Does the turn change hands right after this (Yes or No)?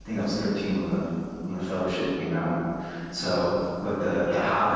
No